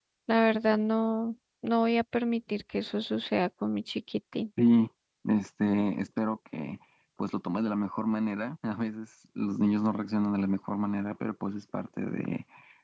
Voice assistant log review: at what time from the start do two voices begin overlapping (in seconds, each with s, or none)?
none